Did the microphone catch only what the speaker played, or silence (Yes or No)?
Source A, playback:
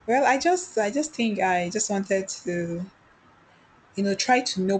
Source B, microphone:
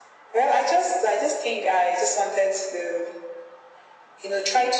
Yes